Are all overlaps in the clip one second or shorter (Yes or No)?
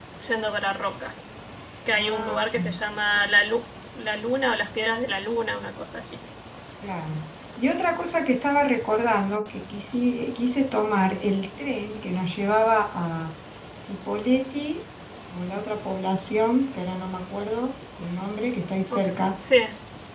Yes